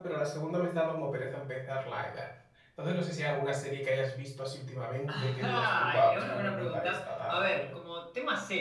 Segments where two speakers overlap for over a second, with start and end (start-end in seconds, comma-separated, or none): 5.1-7.7